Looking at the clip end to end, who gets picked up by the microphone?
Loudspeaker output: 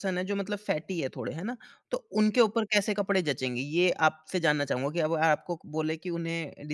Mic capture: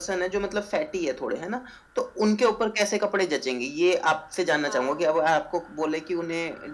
both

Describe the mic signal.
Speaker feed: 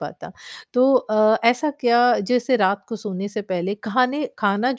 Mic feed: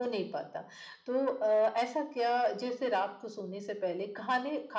echo only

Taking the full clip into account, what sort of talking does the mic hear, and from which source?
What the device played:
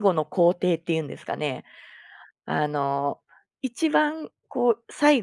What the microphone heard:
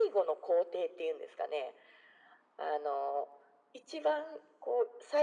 echo only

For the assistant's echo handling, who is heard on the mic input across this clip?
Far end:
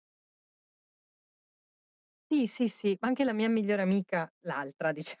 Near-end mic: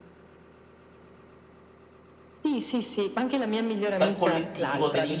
both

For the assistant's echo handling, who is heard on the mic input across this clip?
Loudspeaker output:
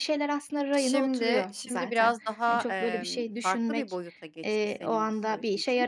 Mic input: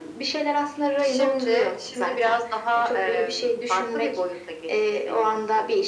echo only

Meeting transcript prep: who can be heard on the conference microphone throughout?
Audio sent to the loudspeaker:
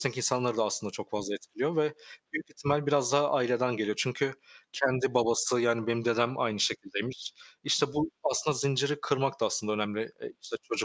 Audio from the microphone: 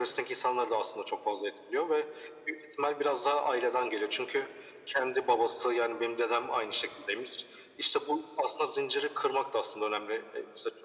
echo only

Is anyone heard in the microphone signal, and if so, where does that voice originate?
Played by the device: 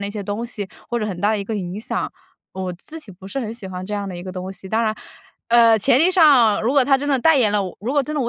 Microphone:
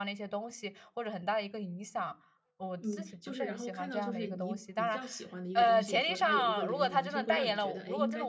both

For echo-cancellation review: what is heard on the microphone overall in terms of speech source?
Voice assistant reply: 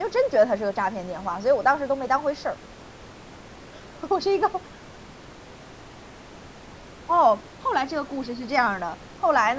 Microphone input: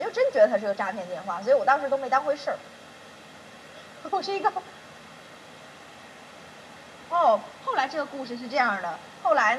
echo only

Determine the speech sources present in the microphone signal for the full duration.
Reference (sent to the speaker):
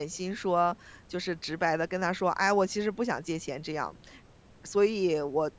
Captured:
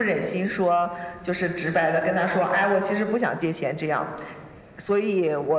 echo only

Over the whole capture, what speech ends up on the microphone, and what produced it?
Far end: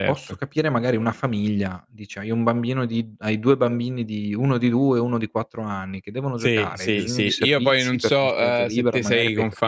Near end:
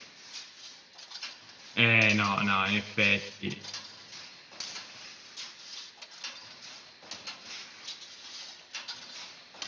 user only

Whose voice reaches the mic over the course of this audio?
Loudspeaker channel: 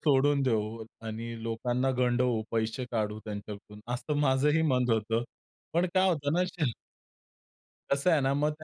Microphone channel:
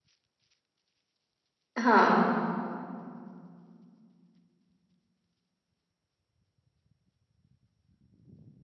user only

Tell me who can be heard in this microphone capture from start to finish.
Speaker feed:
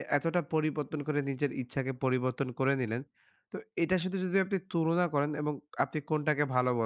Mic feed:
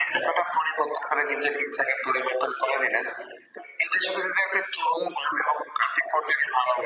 echo only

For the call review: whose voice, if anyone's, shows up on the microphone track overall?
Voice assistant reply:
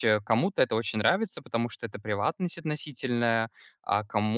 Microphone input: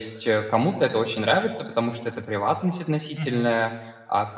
both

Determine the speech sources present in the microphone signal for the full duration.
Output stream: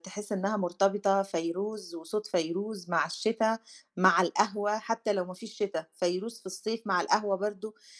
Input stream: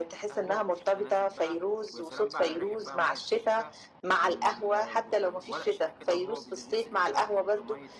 both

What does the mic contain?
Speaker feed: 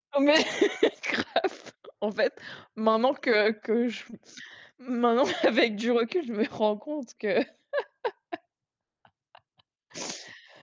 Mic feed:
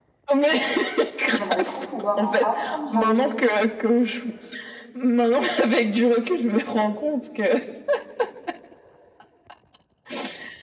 both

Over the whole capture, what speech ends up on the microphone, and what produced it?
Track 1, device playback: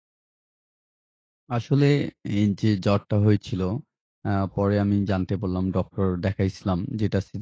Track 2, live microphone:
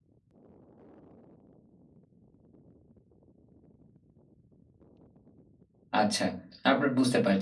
user only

